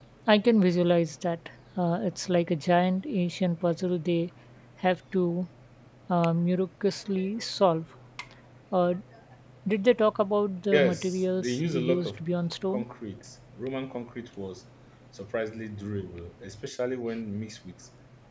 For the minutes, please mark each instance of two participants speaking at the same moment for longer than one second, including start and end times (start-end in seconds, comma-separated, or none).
10.7-12.2